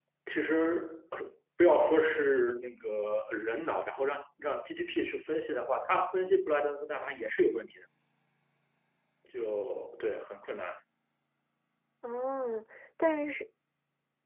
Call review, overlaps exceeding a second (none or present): none